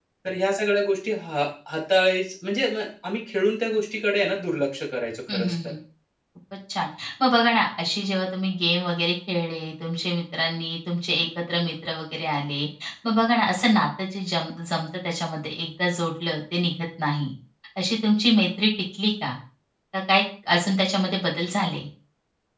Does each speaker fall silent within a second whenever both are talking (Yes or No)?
Yes